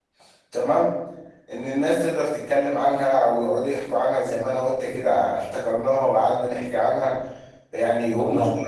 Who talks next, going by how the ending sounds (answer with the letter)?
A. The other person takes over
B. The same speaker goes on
B